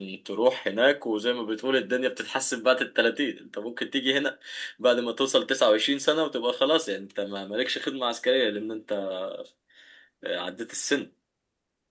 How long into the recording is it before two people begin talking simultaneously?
none

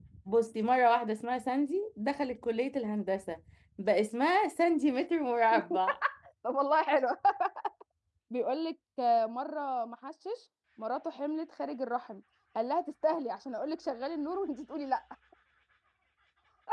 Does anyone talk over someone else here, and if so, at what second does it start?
none

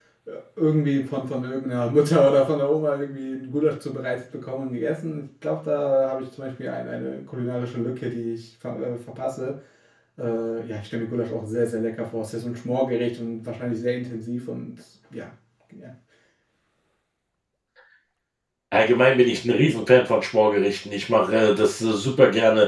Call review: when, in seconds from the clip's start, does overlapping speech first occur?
none

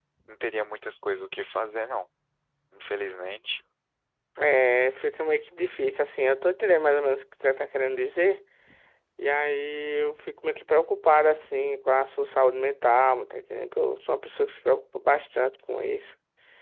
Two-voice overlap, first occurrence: none

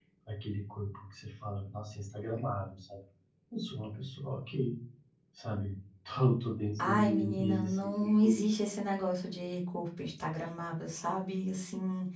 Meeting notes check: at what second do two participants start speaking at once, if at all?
6.8 s

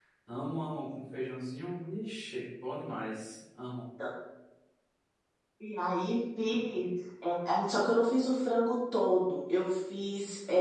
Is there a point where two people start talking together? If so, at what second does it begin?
none

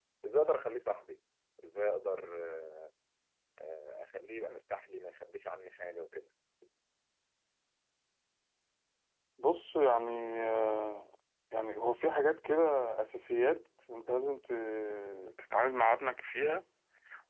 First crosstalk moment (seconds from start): none

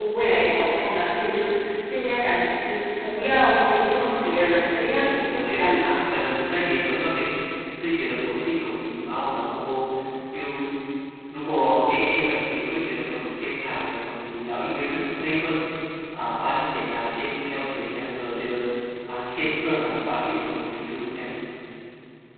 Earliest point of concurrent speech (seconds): 3.9 s

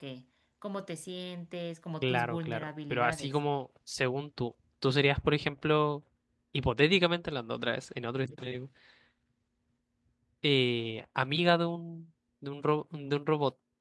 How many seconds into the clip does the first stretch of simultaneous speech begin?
2.0 s

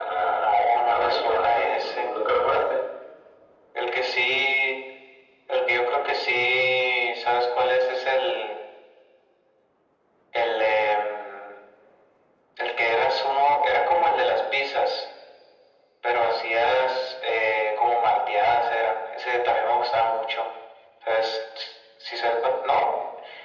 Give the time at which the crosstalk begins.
0.5 s

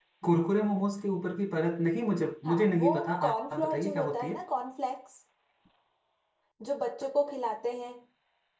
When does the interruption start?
2.5 s

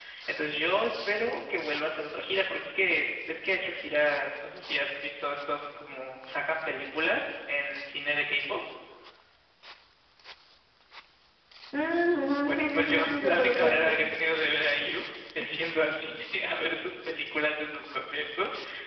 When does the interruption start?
12.4 s

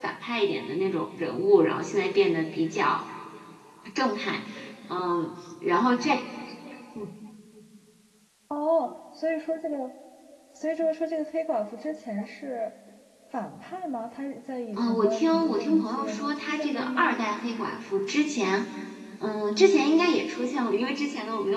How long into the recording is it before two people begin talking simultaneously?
14.8 s

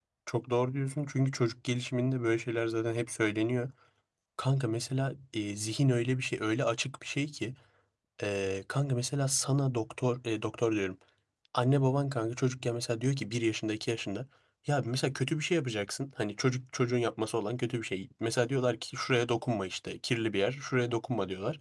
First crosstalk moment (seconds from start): none

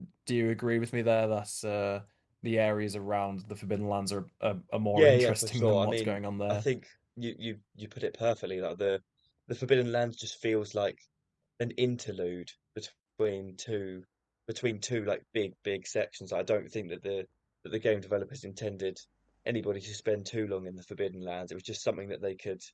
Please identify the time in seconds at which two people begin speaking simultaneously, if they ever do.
4.9 s

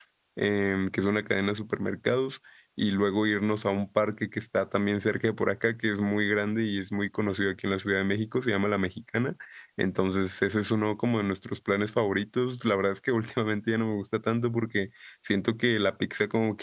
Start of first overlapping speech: none

